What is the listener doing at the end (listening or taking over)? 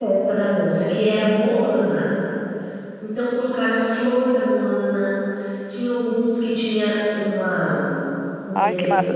taking over